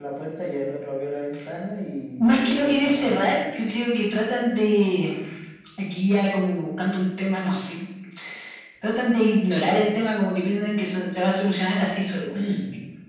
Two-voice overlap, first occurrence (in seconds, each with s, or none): 2.2 s